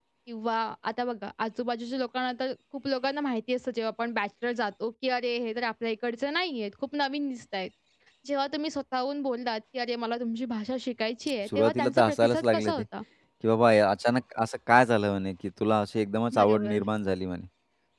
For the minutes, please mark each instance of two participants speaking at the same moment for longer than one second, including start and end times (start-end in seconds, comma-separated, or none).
11.5-12.8